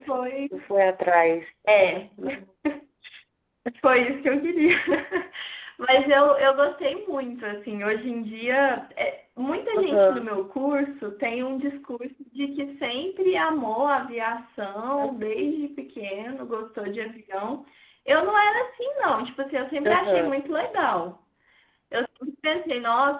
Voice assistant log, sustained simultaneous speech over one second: none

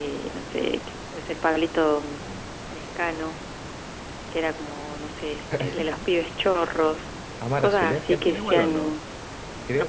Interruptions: present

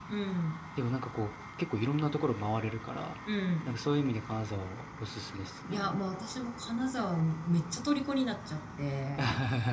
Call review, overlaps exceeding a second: none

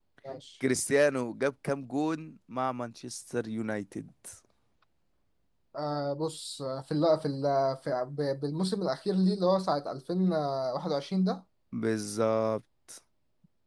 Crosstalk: none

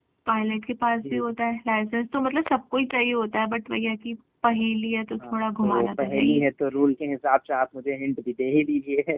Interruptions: present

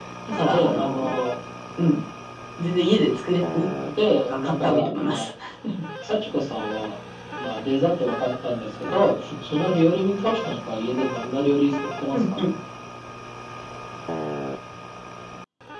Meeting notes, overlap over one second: present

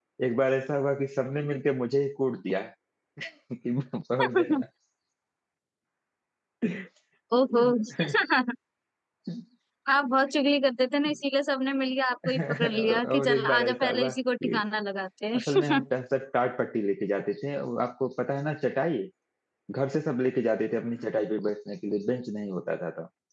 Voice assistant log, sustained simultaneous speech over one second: present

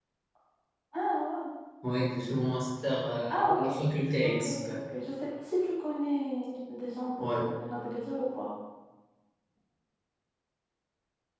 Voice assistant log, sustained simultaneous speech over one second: none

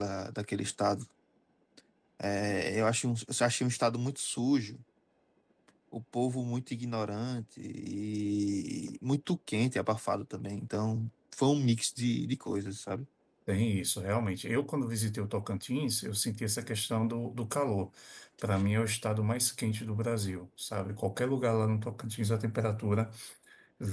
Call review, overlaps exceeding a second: none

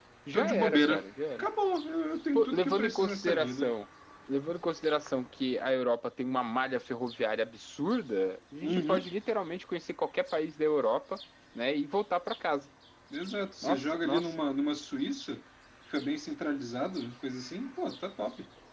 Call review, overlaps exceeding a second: present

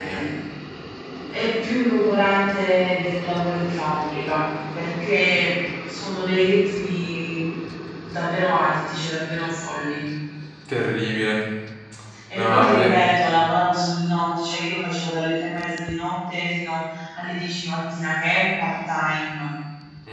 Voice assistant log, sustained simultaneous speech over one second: none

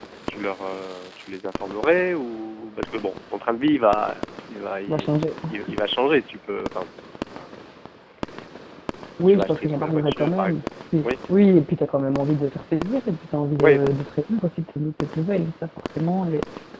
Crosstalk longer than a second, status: present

